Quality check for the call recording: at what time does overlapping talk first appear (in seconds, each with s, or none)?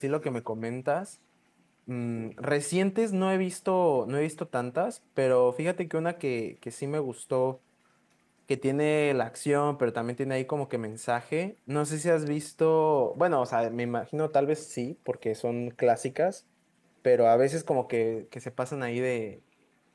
none